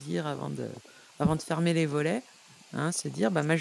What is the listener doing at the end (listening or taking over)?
listening